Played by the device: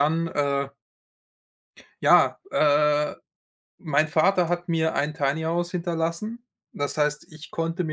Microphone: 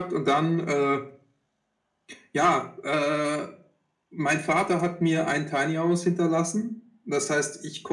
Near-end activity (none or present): none